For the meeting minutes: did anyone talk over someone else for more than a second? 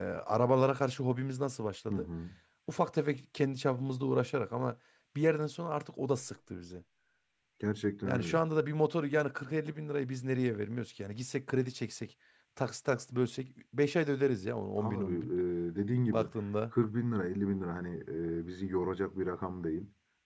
No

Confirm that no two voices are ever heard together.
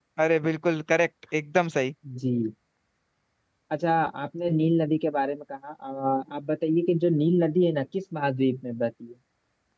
Yes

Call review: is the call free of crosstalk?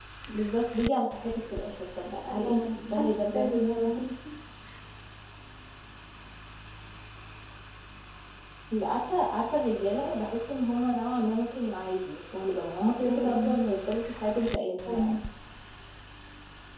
No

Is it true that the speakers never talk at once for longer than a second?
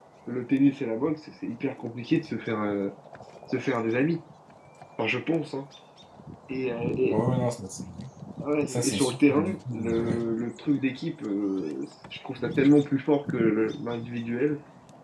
No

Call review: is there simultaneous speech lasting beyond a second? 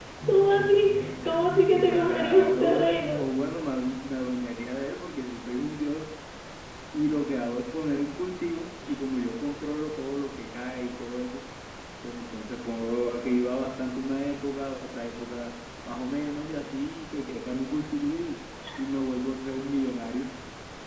Yes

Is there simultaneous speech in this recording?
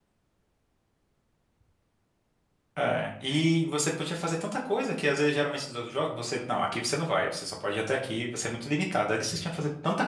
No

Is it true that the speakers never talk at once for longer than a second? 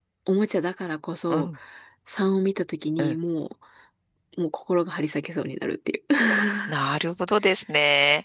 Yes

